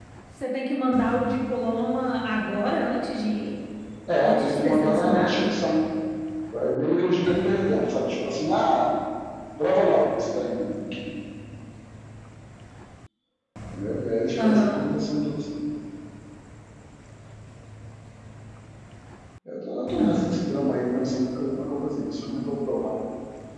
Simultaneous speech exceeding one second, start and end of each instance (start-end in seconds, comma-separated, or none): 4.2-5.6